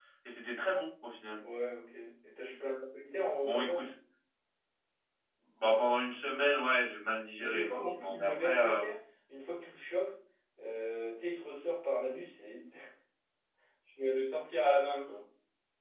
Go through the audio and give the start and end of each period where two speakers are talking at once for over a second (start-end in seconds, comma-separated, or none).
7.4-8.8